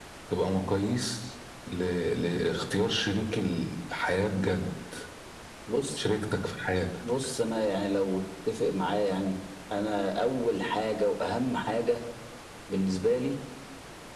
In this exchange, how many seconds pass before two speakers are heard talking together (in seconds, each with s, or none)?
none